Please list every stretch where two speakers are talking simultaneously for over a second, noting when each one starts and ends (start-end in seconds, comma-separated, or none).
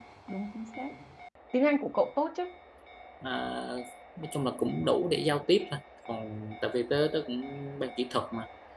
none